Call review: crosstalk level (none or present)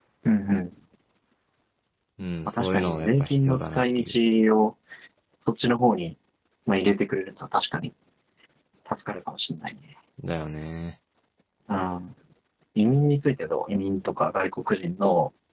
present